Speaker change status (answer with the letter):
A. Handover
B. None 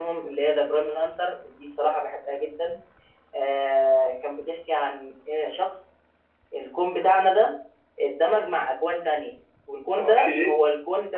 B